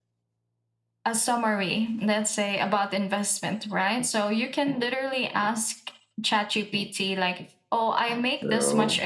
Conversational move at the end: listening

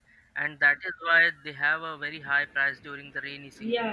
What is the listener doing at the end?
taking over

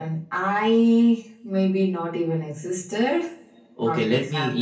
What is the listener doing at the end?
taking over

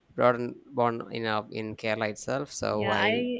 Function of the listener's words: taking over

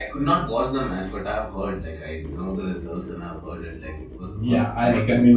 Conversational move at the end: taking over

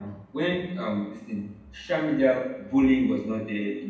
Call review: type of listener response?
listening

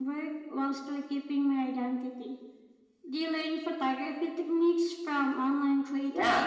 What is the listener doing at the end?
taking over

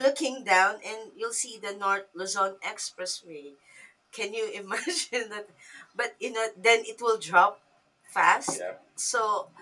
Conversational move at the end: listening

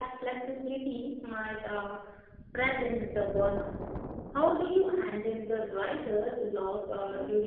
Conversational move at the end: taking over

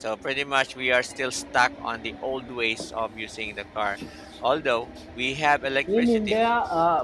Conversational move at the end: taking over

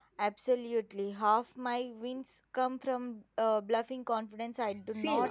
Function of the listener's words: taking over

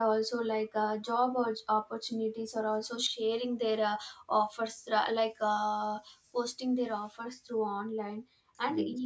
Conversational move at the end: listening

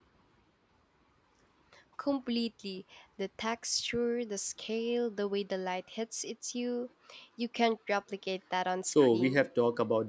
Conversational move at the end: taking over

